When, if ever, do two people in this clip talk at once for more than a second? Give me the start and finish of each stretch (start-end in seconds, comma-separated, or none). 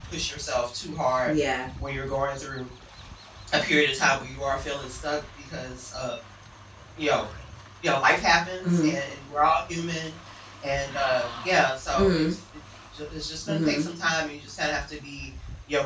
none